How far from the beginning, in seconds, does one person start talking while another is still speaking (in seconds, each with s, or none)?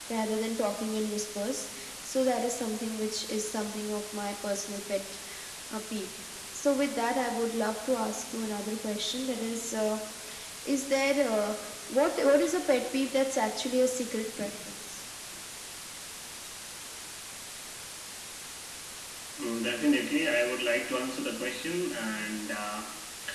none